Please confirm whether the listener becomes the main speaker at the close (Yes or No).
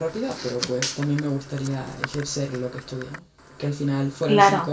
No